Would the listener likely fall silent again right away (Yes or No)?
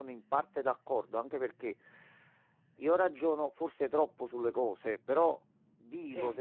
Yes